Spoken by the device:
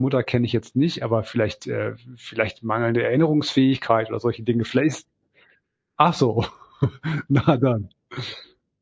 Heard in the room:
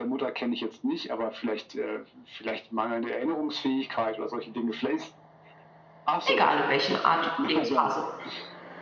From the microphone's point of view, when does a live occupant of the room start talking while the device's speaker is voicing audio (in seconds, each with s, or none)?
6.3 s